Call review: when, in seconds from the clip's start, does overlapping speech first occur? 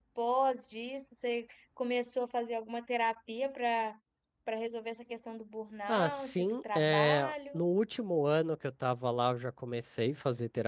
6 s

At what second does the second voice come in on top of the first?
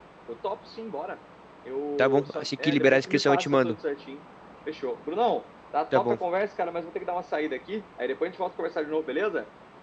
2 s

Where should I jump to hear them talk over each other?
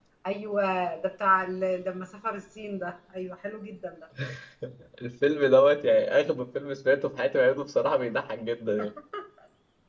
none

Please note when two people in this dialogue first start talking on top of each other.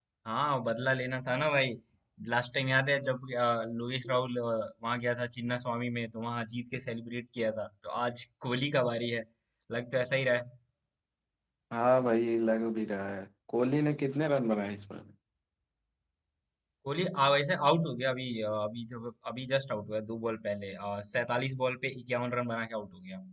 none

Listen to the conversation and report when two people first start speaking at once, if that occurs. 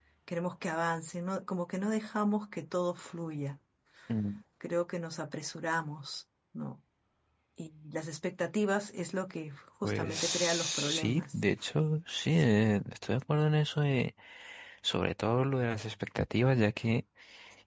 10 s

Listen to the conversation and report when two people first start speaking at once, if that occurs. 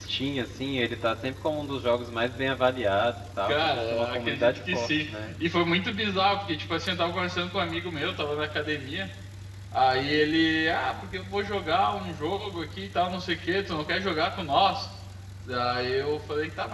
3 s

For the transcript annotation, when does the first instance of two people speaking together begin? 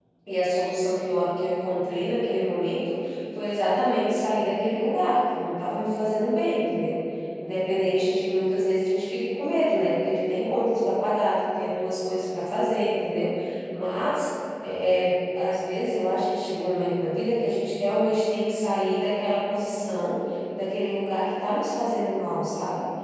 none

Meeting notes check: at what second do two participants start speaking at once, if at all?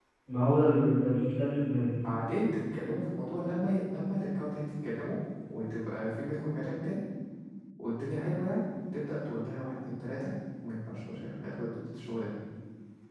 none

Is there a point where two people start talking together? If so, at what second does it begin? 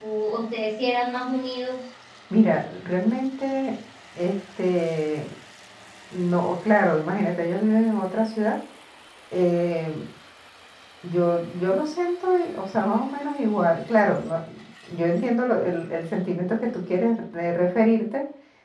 none

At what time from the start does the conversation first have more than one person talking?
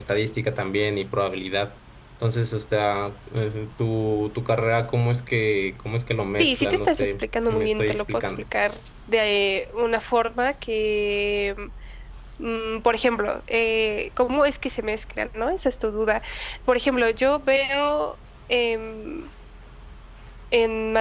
6 s

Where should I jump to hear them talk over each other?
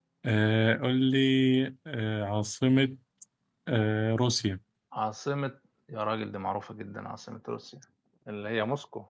none

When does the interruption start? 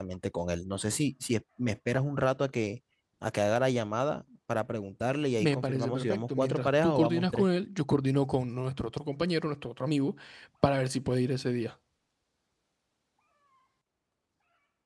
5 s

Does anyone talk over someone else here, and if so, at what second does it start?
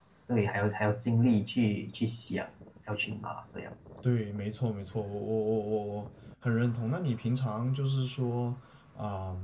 none

